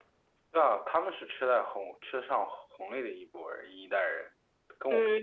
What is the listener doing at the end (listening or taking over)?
taking over